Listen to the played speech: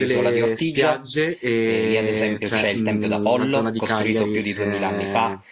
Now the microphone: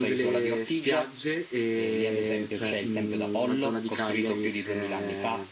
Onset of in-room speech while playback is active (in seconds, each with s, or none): none